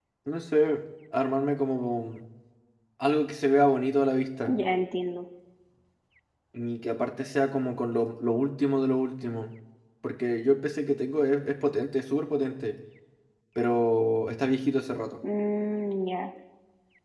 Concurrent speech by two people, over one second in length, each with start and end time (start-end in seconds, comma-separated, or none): none